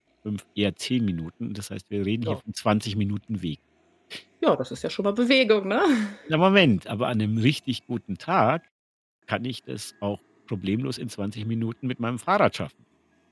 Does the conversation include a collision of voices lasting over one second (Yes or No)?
No